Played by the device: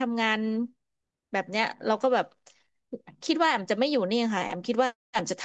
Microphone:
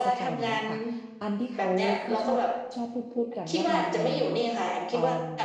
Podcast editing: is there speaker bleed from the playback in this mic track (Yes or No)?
Yes